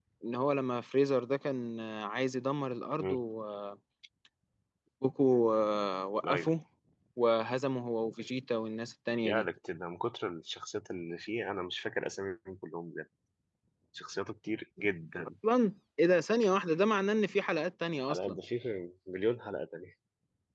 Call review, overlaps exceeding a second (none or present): none